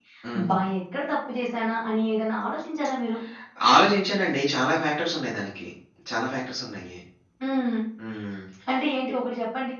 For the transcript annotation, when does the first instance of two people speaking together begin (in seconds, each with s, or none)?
none